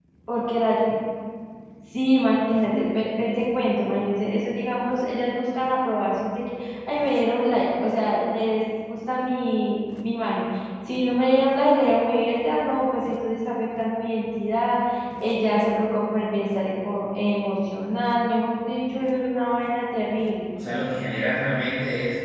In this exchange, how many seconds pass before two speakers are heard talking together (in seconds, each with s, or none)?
none